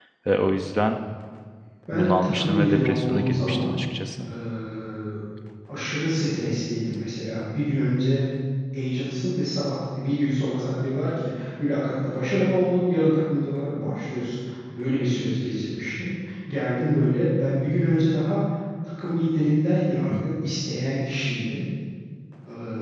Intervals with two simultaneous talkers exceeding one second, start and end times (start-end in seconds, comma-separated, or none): 1.9-3.7